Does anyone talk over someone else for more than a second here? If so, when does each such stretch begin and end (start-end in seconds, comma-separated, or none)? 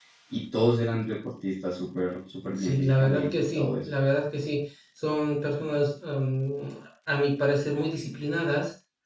2.6-3.9